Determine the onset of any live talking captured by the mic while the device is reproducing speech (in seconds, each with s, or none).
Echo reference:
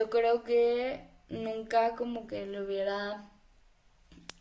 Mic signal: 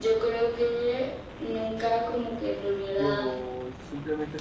2.9 s